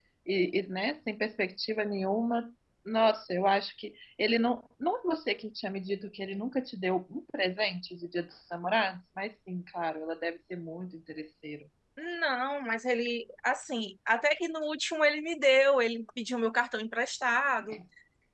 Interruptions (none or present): none